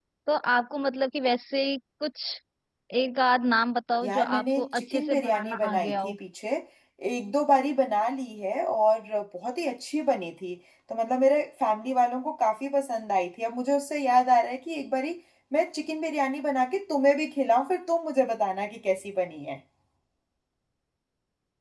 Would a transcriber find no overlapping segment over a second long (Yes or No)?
No